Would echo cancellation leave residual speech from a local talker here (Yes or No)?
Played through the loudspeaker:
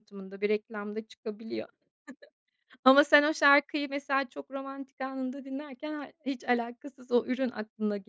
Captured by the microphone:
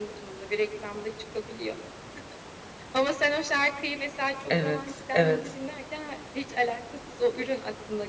Yes